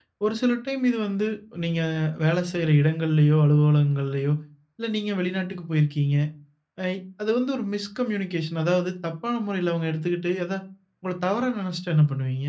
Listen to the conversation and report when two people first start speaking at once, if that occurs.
none

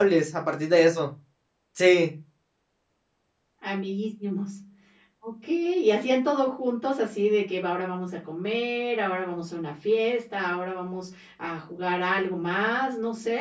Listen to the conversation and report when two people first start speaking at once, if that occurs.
none

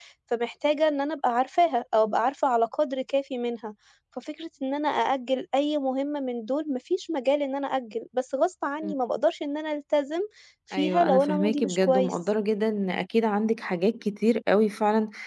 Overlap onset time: 11 s

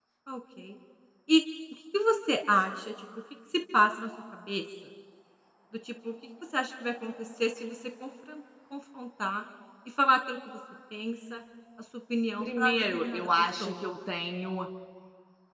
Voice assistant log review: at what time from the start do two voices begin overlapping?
12 s

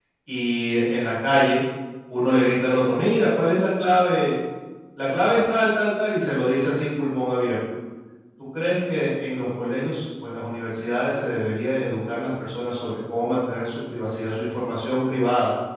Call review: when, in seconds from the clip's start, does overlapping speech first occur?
none

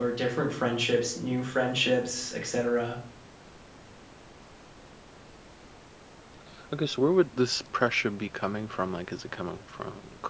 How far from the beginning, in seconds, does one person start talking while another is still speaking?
none

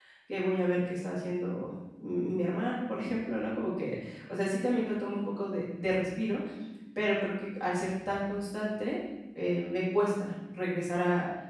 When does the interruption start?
none

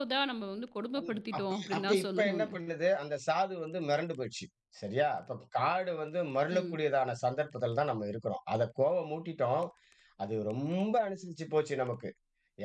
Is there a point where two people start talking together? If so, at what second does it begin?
1 s

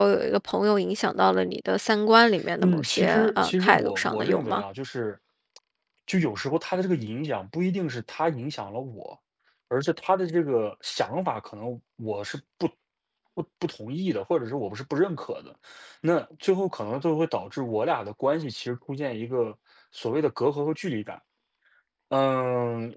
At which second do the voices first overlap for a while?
3 s

